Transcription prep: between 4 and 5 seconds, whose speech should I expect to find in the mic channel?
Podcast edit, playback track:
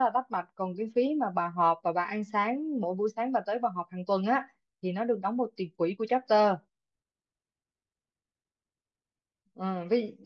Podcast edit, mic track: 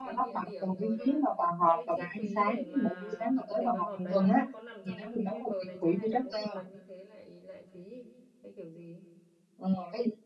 both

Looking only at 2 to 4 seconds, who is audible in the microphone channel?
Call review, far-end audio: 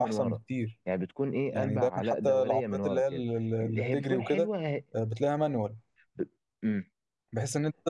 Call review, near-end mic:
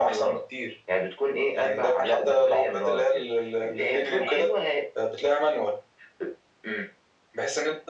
echo only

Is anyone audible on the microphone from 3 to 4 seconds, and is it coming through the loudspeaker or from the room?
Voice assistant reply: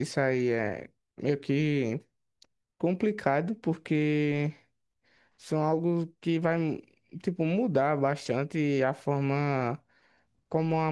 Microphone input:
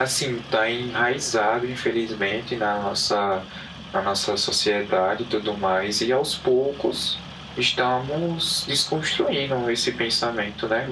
user only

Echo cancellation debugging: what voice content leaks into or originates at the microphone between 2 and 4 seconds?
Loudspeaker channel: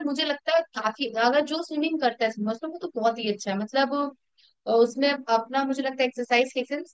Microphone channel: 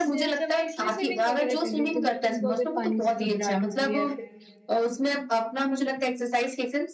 both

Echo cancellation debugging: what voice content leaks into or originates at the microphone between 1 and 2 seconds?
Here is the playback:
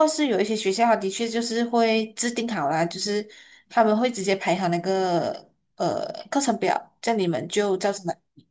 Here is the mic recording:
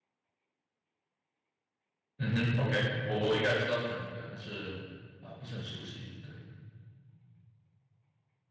neither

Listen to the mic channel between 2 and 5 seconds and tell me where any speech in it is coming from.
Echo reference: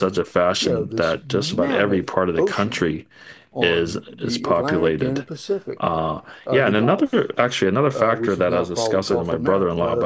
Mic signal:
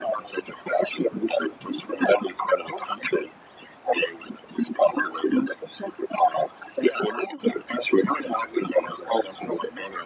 echo only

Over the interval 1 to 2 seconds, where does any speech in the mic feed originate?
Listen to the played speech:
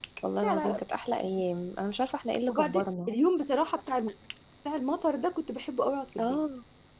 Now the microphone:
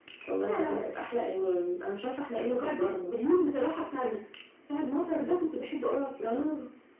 echo only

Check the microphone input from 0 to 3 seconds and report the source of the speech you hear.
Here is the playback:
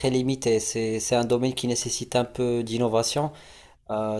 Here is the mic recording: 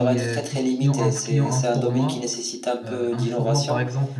both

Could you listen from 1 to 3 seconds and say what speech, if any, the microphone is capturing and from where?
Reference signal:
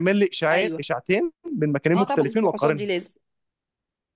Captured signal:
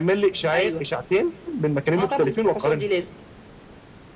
echo only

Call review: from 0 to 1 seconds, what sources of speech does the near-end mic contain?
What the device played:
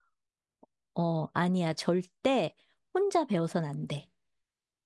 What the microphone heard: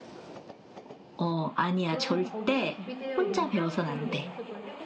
neither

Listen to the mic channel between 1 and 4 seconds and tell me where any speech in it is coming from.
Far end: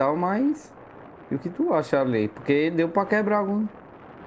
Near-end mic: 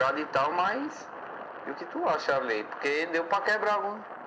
echo only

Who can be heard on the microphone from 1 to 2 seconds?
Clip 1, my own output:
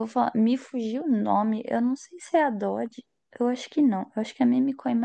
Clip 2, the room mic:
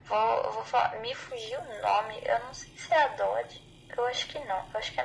echo only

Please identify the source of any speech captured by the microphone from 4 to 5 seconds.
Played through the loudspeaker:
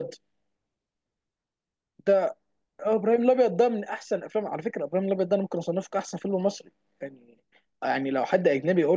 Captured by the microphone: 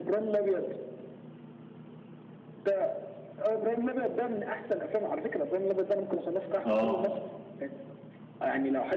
echo only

